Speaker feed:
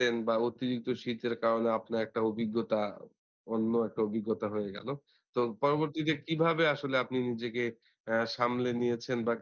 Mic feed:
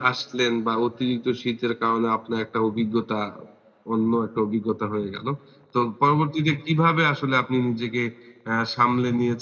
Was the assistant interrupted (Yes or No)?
No